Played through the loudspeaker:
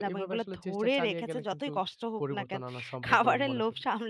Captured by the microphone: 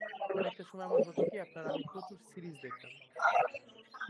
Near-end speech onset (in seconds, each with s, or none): 0.3 s